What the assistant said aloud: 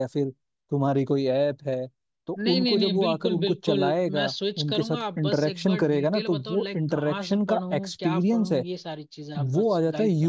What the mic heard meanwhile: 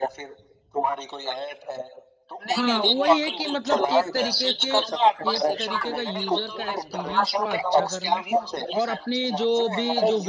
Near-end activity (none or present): present